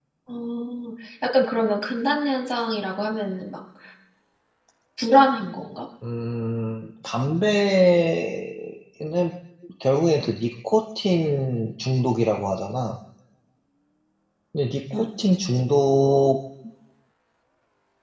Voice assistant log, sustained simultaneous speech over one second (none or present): none